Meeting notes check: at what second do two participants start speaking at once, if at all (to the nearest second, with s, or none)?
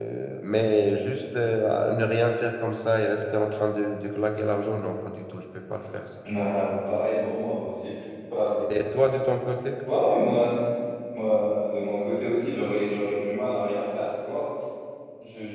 none